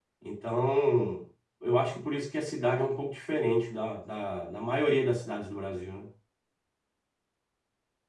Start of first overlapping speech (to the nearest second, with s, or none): none